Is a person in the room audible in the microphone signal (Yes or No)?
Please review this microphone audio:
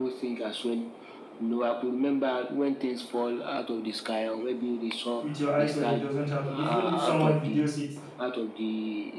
Yes